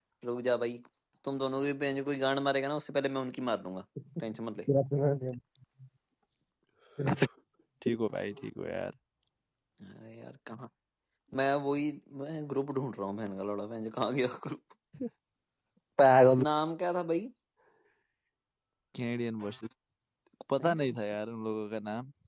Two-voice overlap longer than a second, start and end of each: none

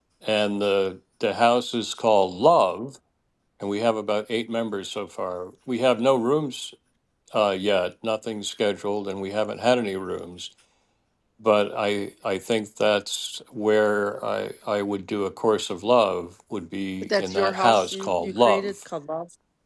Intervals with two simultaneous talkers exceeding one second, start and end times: 17.0-18.8

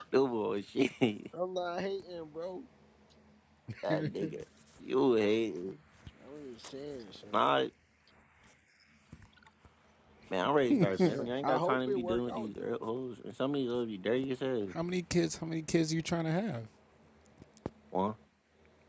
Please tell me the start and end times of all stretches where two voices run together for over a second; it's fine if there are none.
10.6-12.9

